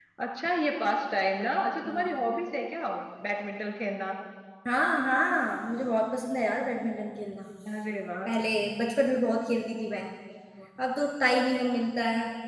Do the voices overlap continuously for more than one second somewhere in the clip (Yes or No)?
No